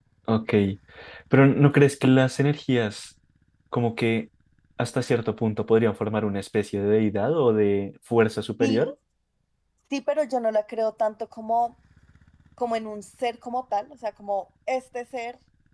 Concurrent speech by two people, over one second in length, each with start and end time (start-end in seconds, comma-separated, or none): none